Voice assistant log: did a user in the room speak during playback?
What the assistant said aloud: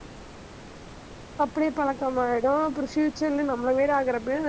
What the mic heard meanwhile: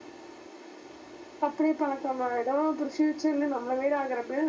No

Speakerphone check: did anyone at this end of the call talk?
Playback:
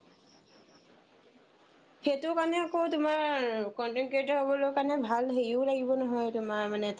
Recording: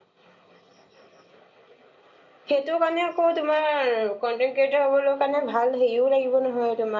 No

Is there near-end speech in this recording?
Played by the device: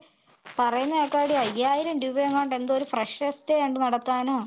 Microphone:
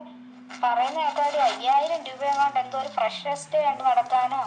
No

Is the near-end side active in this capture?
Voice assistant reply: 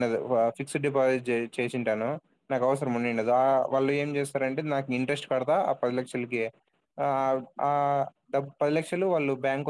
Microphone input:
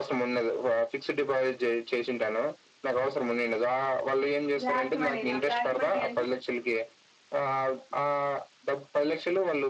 Yes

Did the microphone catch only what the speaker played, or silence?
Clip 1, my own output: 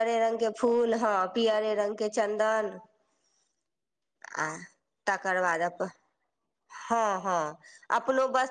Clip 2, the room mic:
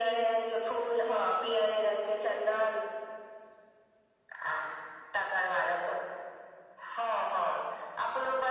Yes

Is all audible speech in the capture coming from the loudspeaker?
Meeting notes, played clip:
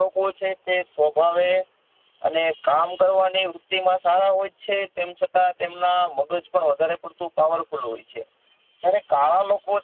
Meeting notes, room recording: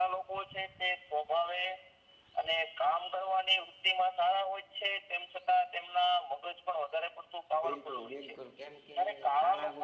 No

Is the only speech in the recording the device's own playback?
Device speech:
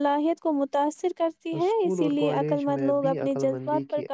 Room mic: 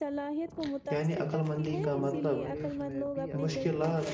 No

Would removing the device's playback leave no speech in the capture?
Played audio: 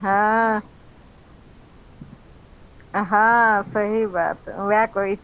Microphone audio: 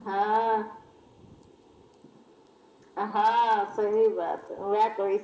Yes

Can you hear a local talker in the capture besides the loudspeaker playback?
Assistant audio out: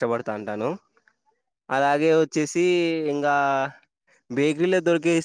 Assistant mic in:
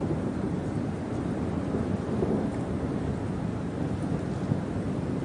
No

